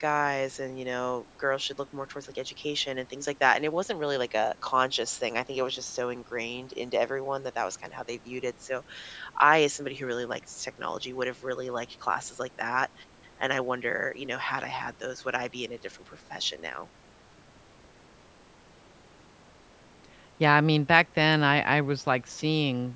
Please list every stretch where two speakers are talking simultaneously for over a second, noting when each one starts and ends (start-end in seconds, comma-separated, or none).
none